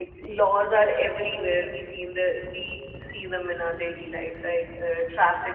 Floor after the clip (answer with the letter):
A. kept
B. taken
B